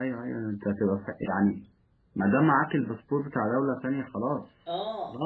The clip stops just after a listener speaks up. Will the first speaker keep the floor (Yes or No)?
No